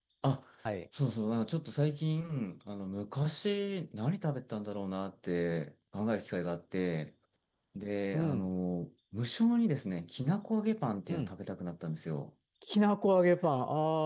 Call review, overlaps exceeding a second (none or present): none